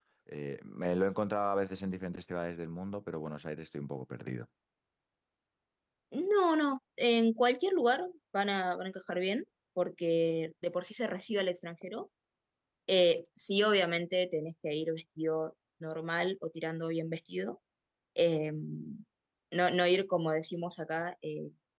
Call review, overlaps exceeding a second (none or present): none